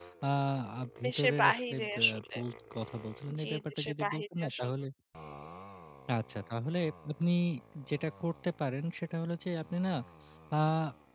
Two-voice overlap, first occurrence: 1.0 s

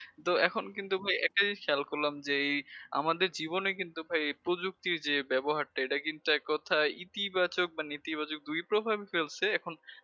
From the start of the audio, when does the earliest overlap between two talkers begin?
none

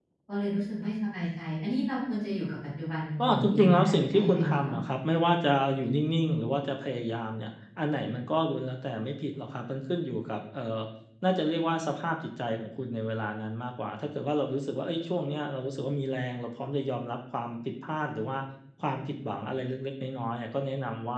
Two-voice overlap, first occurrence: 3.2 s

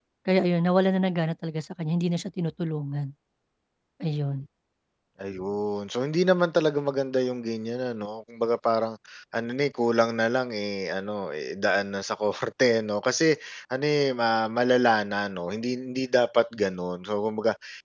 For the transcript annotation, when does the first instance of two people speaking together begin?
none

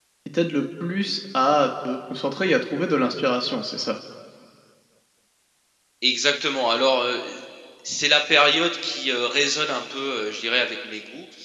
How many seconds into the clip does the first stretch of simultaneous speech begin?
none

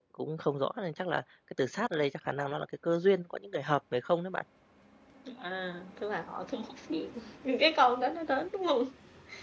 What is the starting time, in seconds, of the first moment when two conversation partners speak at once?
none

